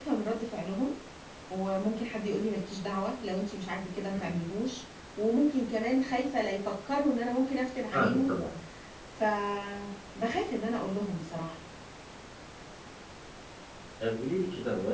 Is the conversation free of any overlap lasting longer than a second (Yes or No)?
Yes